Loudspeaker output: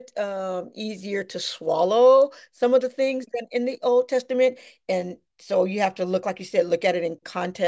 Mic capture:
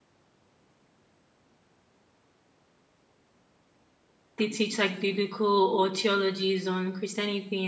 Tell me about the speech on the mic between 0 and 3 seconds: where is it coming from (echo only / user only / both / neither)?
neither